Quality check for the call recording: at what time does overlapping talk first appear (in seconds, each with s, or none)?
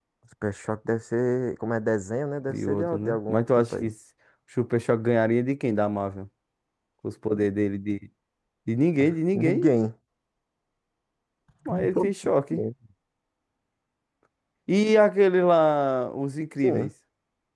2.5 s